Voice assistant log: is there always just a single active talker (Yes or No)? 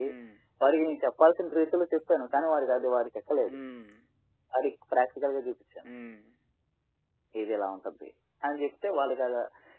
Yes